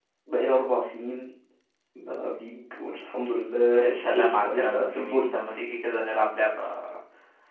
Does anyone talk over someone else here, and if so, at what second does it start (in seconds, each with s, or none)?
3.8 s